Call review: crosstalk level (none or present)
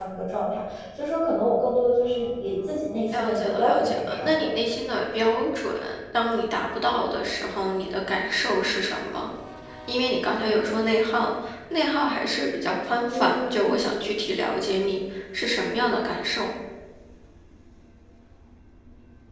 present